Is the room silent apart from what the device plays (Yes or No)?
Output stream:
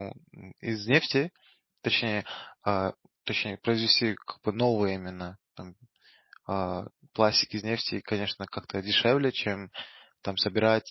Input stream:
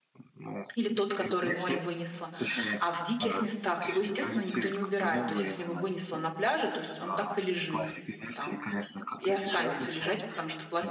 No